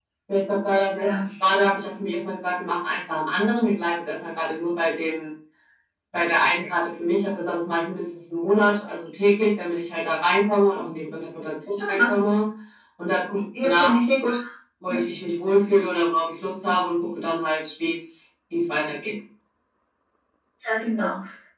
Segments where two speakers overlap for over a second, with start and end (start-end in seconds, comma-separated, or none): none